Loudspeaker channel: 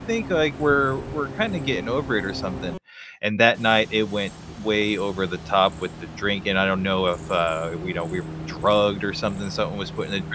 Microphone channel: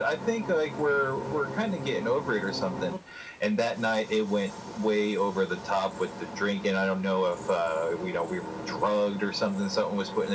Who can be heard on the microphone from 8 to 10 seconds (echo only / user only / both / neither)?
echo only